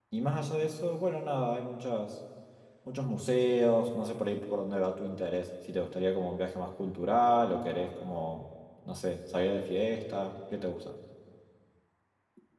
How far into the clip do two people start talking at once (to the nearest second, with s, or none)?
none